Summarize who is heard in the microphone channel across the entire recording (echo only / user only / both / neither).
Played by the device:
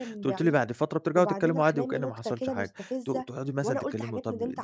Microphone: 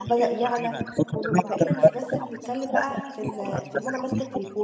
both